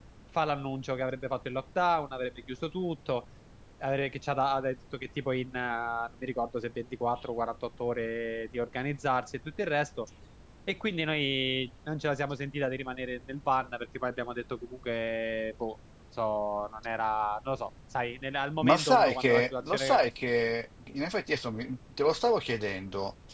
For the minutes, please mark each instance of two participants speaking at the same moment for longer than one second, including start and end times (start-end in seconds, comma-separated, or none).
18.6-20.0